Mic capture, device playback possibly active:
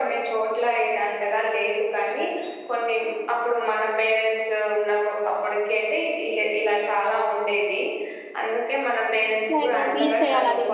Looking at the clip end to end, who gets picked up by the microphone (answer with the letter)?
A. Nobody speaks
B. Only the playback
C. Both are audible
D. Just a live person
C